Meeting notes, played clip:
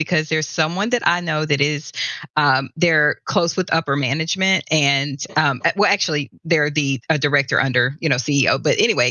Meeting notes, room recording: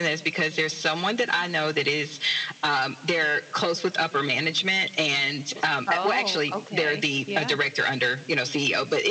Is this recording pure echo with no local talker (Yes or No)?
No